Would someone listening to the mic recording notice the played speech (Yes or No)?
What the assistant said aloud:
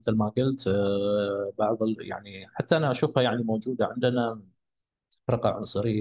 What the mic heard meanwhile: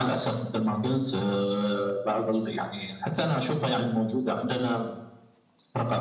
Yes